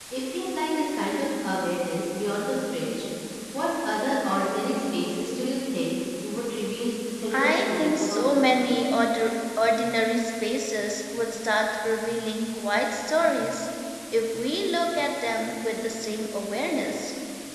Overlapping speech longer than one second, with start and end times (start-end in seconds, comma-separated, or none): 7.3-8.5